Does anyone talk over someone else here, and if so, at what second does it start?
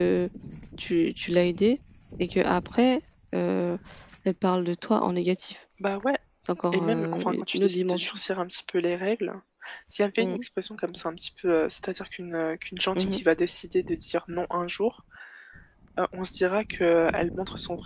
6.7 s

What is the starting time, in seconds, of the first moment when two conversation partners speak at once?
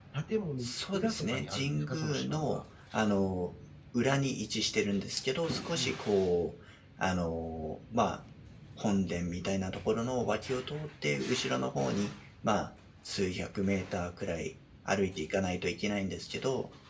0.6 s

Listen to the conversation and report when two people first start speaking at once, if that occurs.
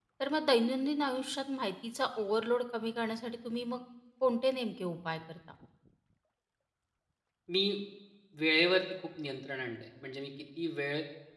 none

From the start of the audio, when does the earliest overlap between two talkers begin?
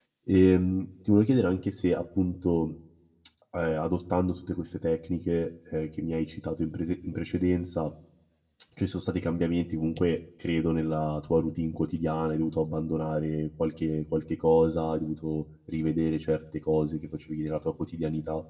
none

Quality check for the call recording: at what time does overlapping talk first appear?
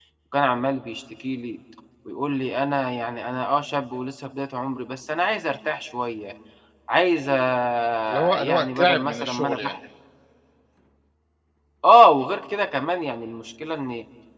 8.3 s

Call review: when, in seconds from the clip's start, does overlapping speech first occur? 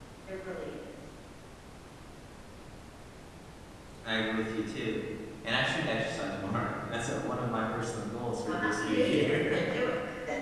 8.4 s

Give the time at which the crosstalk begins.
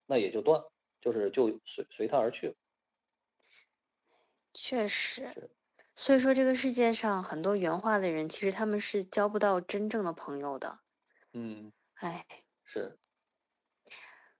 none

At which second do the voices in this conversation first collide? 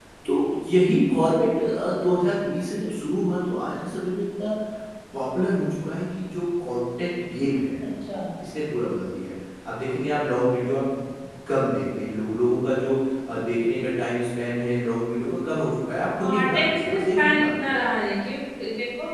16.2 s

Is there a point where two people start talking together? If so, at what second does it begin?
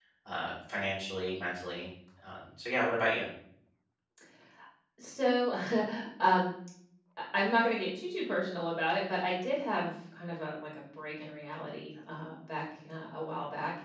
none

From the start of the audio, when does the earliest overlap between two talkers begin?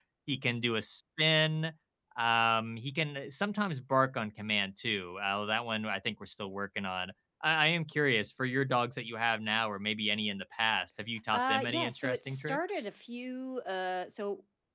11.3 s

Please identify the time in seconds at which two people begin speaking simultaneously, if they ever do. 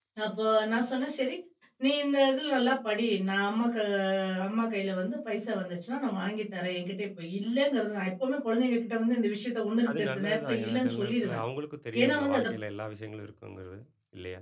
9.9 s

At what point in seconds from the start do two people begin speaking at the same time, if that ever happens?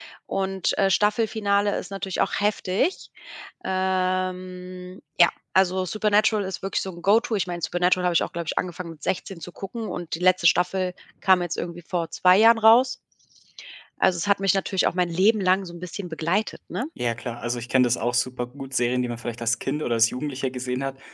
none

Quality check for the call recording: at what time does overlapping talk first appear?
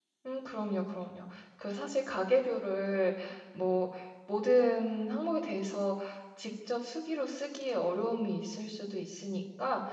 none

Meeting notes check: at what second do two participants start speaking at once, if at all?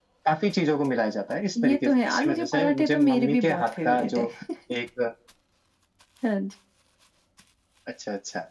1.6 s

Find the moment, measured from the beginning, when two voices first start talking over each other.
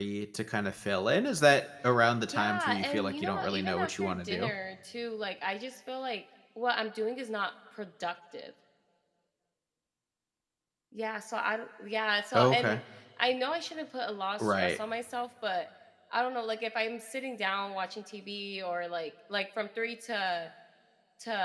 2.2 s

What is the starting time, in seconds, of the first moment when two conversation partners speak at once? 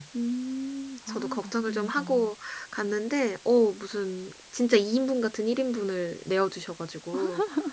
1.1 s

